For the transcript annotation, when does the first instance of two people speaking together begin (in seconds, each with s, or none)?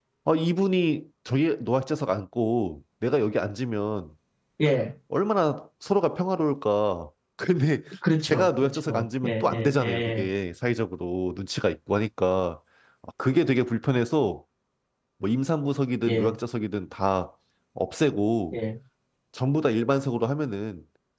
8.2 s